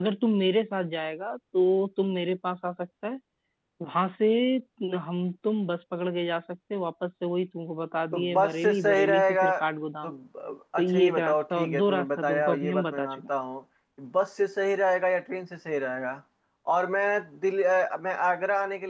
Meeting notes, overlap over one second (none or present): present